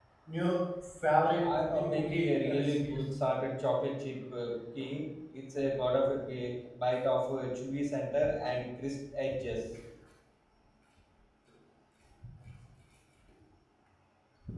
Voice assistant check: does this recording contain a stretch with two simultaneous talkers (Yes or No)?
Yes